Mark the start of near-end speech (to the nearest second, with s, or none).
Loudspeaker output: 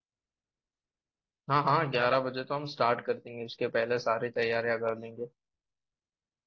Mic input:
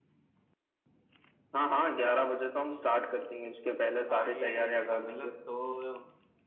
4 s